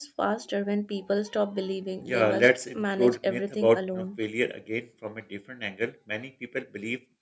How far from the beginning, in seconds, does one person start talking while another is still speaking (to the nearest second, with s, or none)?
2 s